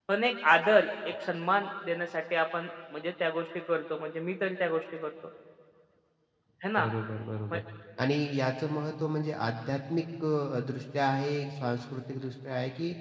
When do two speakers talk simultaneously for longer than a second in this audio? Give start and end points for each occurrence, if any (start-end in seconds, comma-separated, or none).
none